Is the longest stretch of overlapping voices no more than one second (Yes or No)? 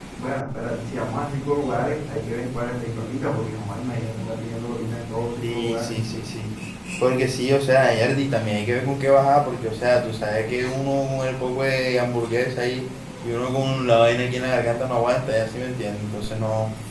Yes